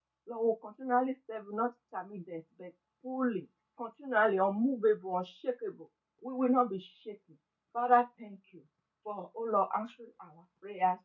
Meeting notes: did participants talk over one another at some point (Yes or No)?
No